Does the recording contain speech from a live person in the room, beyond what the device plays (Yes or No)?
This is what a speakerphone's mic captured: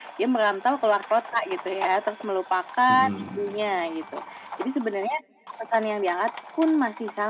Yes